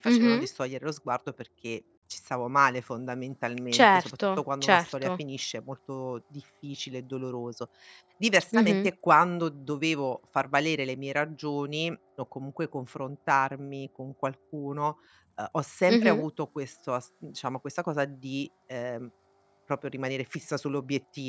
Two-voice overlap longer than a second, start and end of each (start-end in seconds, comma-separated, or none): 3.8-5.1